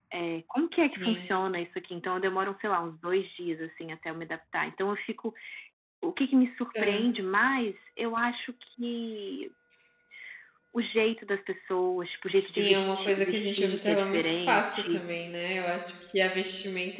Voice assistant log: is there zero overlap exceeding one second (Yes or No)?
No